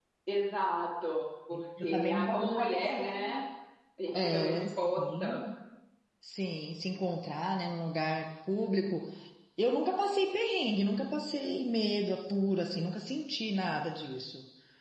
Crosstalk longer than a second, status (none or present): present